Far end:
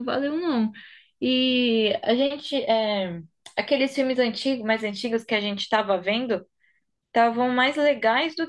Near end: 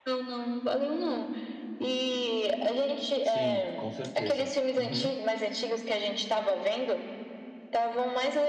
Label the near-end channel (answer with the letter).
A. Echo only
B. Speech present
B